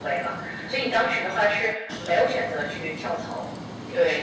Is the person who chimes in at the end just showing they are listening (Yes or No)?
No